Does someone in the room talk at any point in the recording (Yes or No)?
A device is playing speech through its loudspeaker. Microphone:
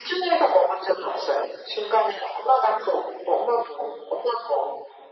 No